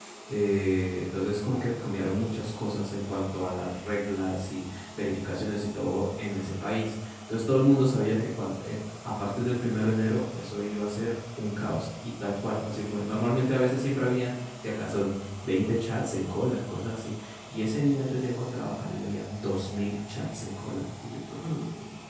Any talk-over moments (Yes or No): No